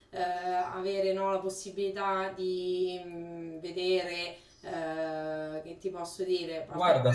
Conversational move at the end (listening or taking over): taking over